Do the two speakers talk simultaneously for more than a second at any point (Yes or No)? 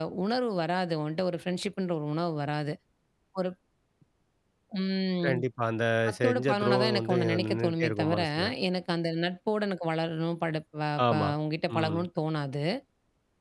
Yes